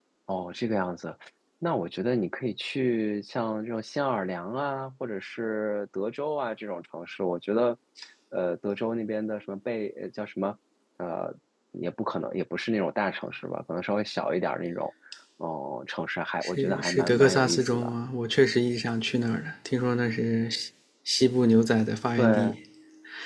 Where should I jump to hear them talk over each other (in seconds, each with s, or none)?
16.4 s